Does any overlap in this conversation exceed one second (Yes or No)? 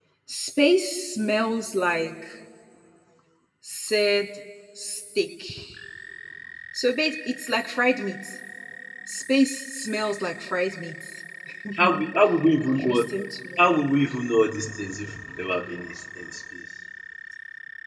No